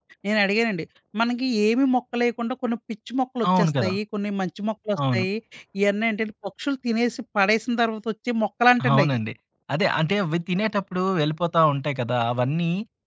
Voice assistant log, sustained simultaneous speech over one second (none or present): none